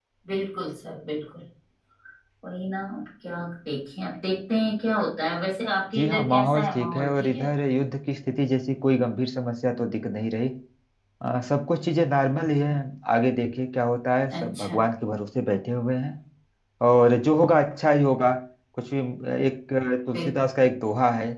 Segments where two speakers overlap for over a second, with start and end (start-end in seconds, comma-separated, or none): 6.0-7.5